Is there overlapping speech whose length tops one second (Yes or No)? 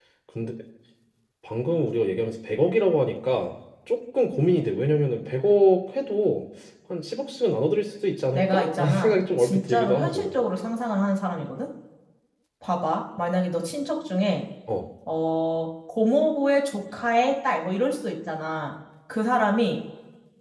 Yes